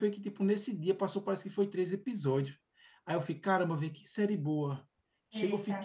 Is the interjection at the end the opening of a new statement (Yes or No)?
Yes